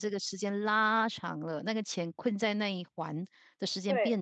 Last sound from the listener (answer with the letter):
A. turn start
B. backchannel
A